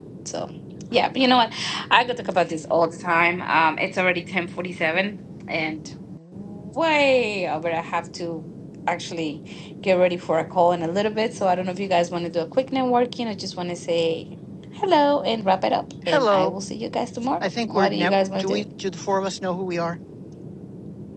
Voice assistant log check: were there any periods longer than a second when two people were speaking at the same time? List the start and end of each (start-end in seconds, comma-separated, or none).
17.4-18.6